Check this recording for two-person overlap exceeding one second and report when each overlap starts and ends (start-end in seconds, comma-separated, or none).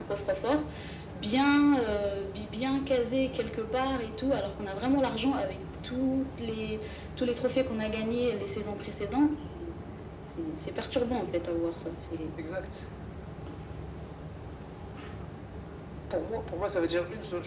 none